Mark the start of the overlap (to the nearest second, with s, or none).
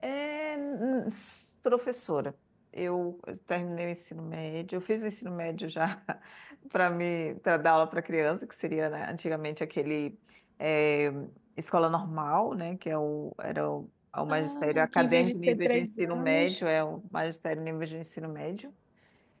14 s